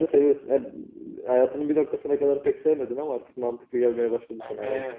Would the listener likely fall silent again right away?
No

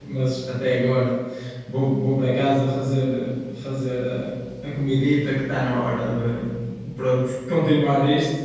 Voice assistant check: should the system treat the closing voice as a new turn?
No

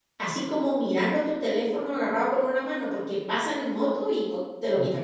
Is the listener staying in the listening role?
No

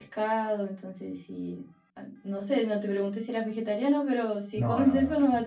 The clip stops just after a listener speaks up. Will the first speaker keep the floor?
No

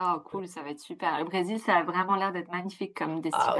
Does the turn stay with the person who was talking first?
No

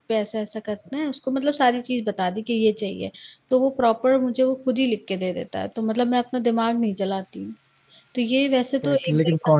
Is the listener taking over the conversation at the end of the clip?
Yes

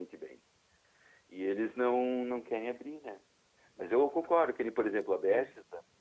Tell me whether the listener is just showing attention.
Yes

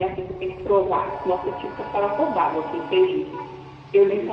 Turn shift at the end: Yes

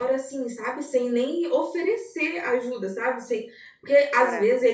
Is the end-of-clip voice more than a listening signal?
No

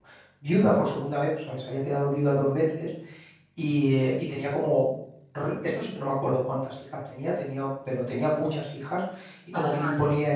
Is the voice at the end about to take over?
No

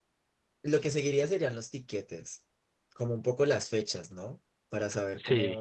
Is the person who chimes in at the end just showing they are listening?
Yes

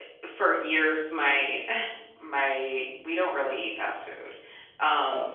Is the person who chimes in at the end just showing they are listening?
Yes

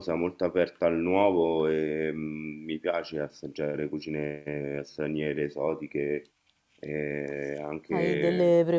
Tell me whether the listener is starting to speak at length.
Yes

